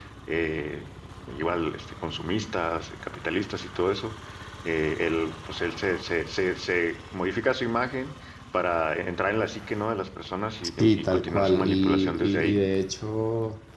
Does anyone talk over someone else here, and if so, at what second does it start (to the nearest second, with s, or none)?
11 s